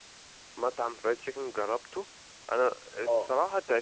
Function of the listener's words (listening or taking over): listening